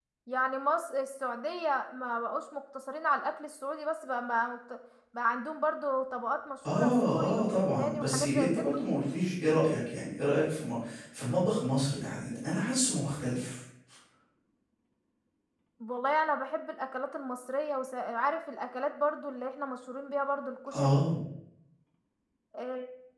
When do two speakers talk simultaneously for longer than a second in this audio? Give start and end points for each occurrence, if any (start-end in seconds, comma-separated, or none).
6.7-8.7